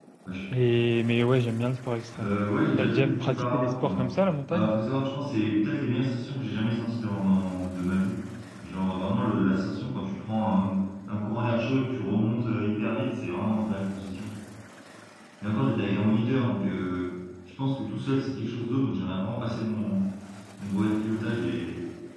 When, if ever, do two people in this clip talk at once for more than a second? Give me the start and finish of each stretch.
2.8-4.1

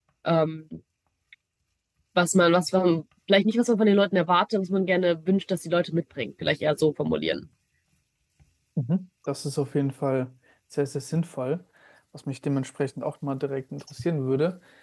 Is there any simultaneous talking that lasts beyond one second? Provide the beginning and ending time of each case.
none

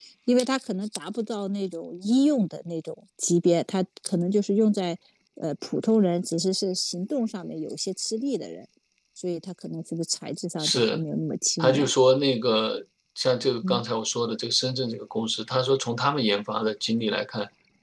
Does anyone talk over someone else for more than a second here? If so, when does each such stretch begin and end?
none

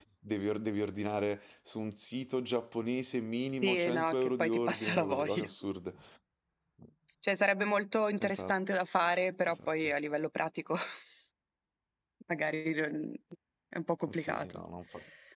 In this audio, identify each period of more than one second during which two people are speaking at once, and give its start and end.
3.6-5.4

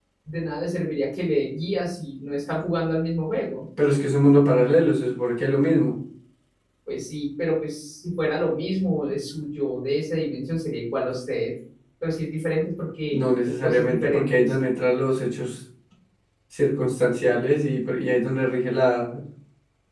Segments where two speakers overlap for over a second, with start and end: 13.1-14.5

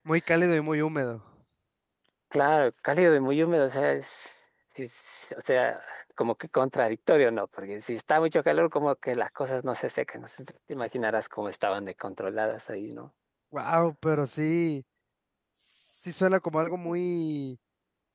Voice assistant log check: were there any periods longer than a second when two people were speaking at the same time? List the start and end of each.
none

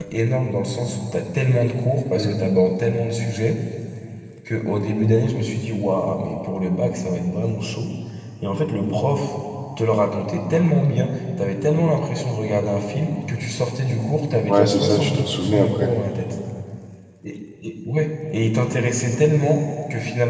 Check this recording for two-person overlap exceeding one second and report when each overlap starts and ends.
14.5-15.9

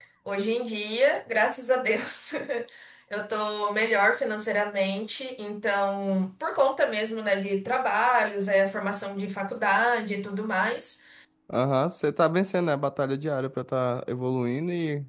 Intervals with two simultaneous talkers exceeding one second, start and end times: none

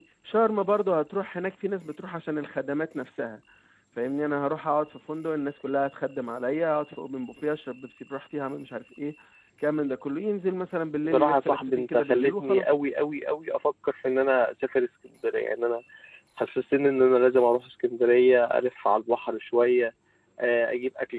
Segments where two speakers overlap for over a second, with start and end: 11.1-12.7

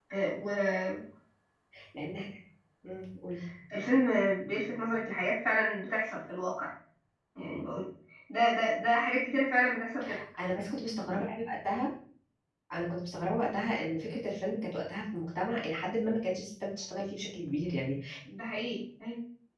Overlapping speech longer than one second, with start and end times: none

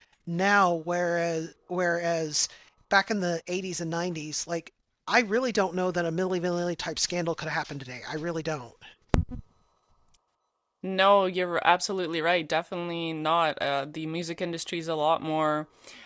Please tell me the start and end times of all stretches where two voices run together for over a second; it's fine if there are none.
none

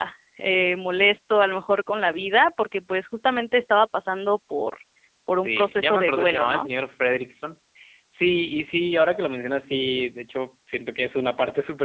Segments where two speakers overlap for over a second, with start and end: 5.5-6.7

